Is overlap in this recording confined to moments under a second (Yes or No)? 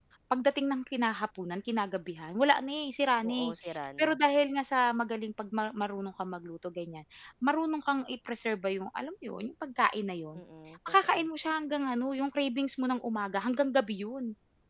Yes